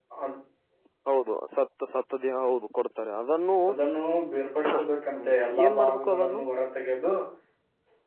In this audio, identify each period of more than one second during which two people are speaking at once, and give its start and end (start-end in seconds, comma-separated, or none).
5.2-6.4